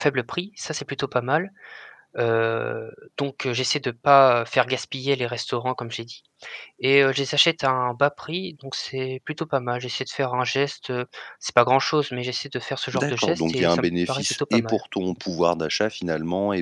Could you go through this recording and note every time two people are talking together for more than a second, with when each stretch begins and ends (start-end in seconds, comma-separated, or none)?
12.9-14.8